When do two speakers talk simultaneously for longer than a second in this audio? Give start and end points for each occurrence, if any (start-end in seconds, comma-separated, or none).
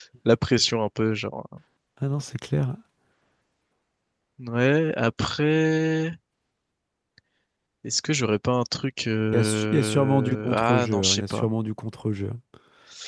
9.3-11.5